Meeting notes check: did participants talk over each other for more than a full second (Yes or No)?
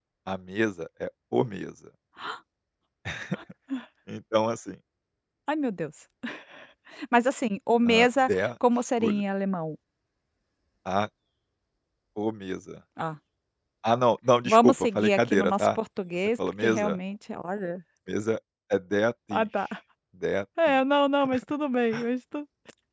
Yes